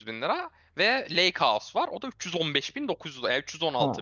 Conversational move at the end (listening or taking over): taking over